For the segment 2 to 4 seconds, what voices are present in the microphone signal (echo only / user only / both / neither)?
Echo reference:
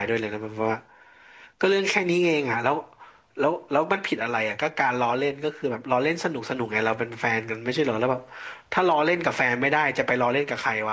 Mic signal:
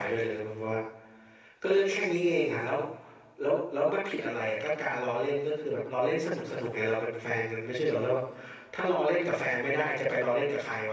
echo only